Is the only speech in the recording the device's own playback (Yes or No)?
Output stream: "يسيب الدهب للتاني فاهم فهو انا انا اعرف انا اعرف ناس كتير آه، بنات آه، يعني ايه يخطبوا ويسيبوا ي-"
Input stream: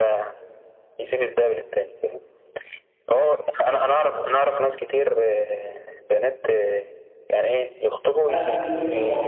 No